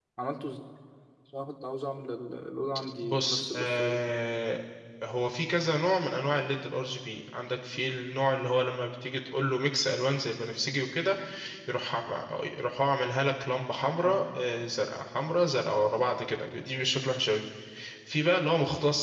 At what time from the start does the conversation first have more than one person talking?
3.0 s

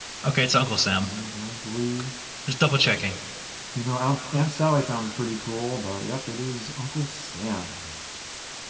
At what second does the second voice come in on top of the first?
none

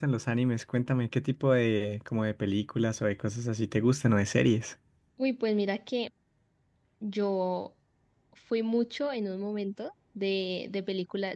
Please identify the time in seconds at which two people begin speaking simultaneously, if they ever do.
none

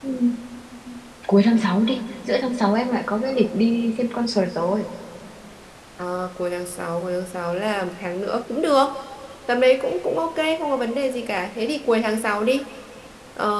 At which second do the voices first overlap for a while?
none

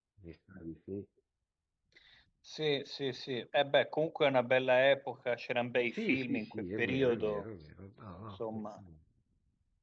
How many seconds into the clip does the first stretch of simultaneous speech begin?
5.9 s

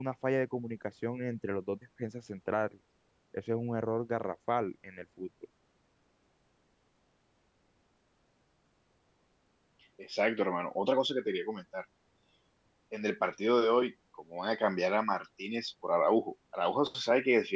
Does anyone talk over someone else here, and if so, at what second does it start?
none

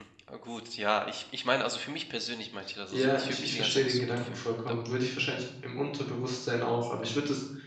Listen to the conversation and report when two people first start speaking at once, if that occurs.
2.9 s

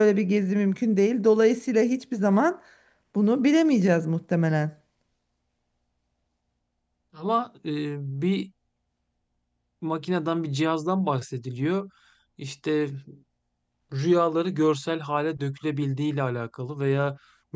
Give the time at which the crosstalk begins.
none

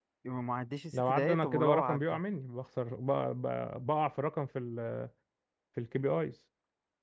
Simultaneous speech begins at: 0.9 s

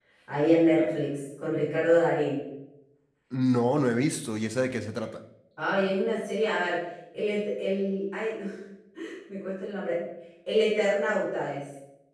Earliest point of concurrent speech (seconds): none

